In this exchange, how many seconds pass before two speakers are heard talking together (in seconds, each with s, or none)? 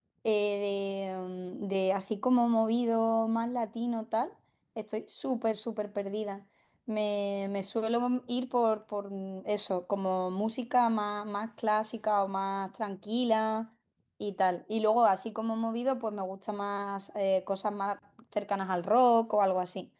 none